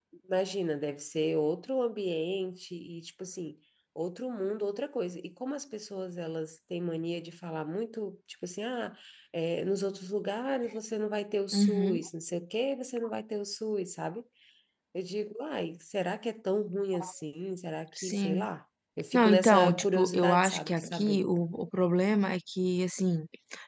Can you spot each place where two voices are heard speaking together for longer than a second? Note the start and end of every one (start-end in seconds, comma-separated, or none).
19.1-21.2